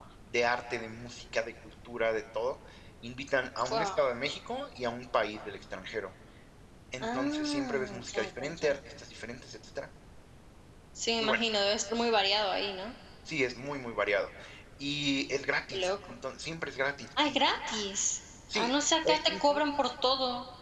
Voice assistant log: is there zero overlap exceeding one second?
No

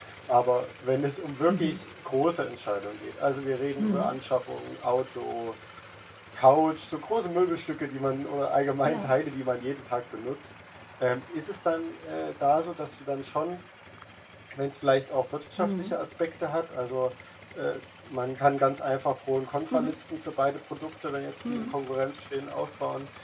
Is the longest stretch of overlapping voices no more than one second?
Yes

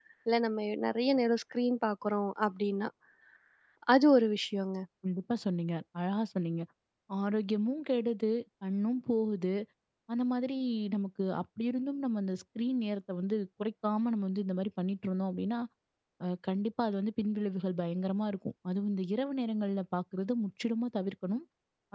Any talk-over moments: No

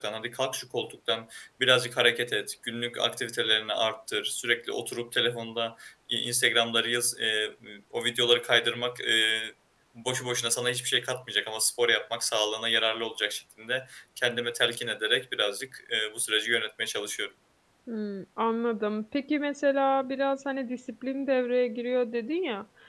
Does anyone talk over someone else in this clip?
No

